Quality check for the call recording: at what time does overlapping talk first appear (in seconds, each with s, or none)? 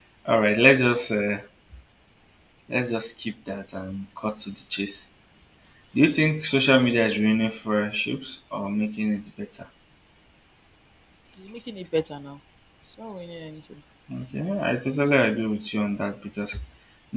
none